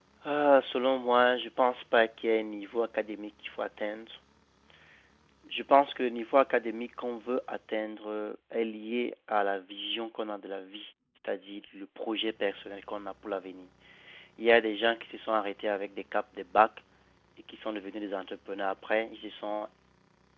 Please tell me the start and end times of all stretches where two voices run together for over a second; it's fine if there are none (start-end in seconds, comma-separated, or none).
none